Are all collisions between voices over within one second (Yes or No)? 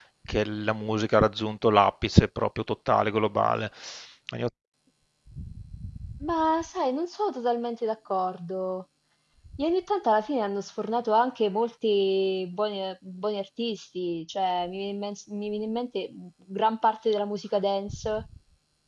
Yes